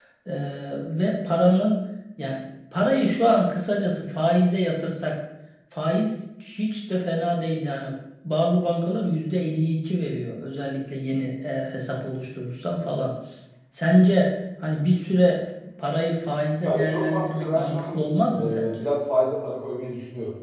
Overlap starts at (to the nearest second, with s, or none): 17 s